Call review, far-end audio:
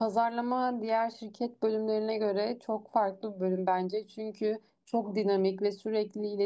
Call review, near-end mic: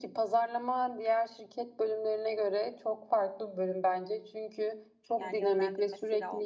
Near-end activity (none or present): present